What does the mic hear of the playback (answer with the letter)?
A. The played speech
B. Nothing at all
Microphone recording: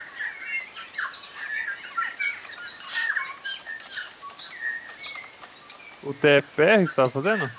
B